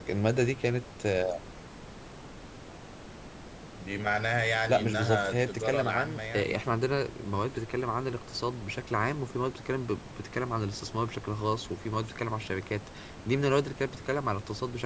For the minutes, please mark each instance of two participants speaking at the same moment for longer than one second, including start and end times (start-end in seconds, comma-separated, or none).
4.7-6.6